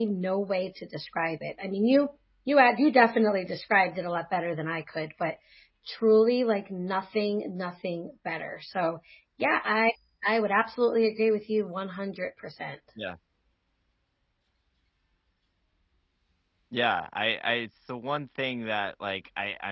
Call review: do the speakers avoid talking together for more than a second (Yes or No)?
Yes